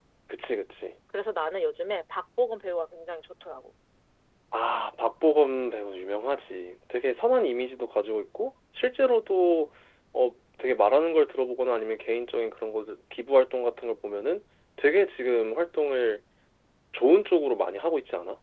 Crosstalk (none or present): none